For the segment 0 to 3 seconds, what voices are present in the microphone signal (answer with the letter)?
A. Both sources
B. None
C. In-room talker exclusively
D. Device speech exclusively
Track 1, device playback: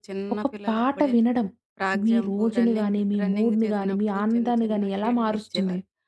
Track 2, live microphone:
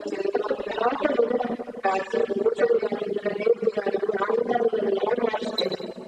D